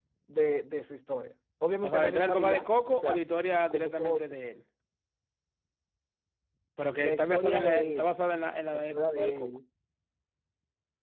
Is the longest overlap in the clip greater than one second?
Yes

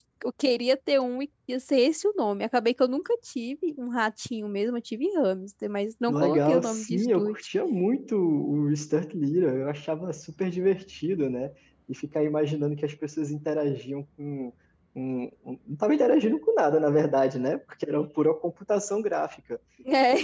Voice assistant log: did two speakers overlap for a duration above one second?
Yes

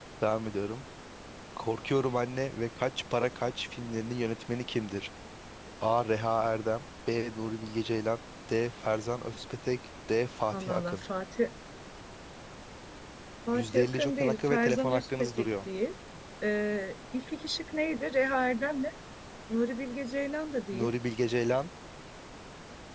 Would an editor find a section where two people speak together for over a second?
Yes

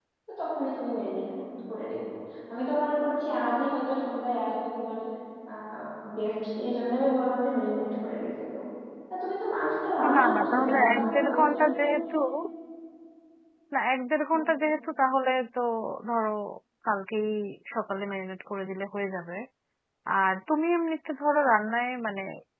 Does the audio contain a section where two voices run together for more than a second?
Yes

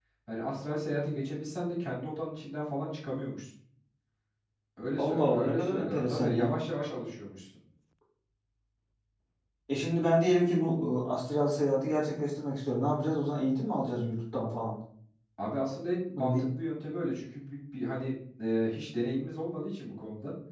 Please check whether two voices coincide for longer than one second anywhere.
Yes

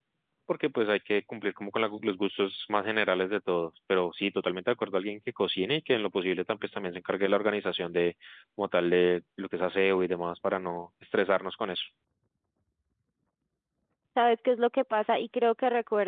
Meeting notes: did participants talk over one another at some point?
No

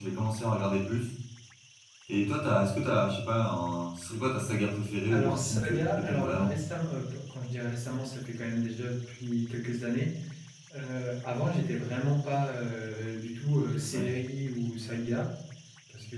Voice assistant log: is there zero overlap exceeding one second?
No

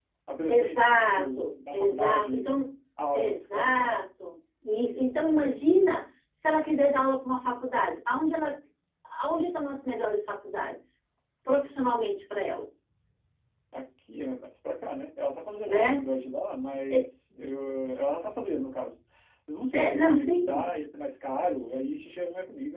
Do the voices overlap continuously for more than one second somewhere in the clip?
Yes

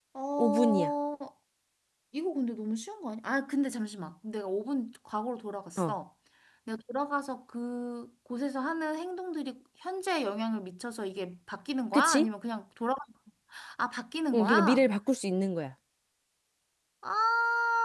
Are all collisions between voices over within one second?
Yes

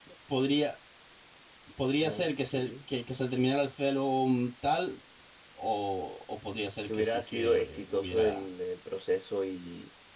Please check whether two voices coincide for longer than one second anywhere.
Yes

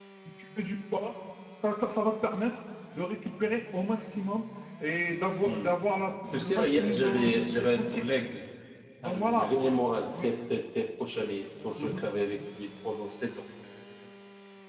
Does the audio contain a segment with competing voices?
Yes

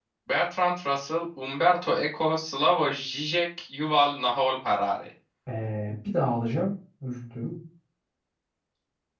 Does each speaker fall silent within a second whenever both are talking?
Yes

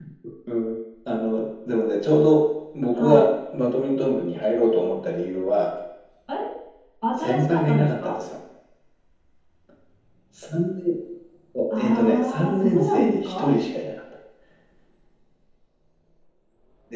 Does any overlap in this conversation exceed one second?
Yes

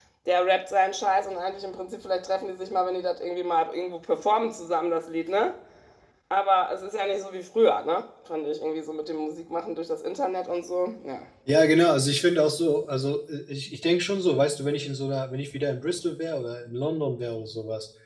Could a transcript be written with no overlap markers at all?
Yes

